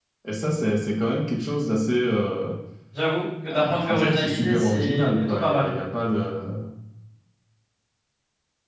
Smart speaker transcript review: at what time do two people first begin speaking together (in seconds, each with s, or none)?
3.5 s